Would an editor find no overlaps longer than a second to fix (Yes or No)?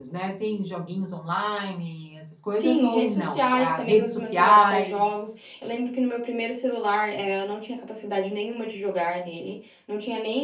No